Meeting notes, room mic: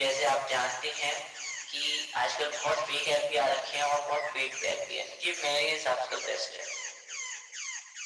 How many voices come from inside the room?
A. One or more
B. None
B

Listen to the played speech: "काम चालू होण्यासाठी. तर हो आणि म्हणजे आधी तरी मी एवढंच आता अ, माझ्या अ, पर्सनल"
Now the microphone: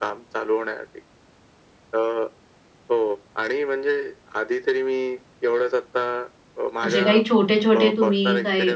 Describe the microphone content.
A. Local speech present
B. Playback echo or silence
A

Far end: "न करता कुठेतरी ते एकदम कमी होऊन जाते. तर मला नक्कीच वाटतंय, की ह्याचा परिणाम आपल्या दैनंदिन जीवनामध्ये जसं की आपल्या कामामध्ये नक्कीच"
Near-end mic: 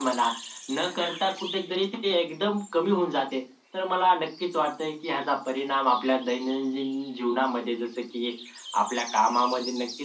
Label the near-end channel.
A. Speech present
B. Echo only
B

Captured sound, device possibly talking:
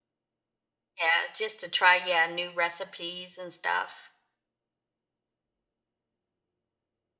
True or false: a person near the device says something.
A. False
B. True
B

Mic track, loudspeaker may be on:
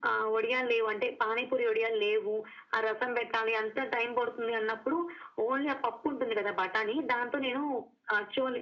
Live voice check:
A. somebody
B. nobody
B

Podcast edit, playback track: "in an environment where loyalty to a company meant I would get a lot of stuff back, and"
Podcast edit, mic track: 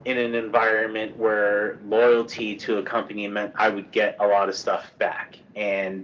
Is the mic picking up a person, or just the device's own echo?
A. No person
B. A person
A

